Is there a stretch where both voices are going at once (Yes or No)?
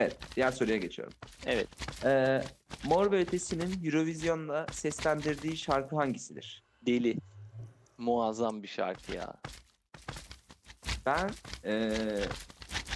No